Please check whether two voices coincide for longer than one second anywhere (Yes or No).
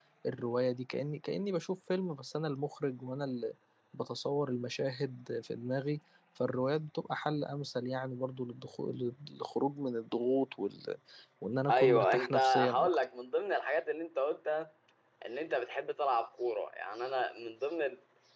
Yes